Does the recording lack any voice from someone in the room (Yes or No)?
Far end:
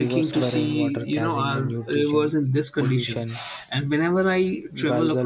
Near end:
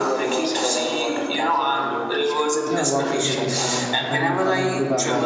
No